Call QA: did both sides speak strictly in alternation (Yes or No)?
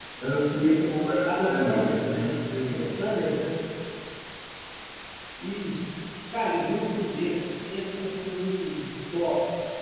No